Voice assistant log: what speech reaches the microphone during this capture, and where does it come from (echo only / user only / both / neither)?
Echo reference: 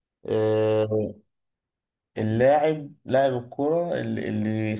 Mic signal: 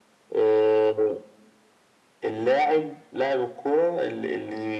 echo only